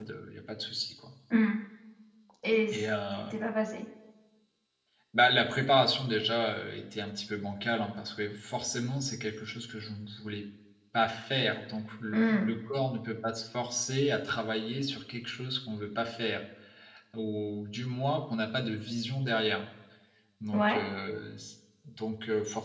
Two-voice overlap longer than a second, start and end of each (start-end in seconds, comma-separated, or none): none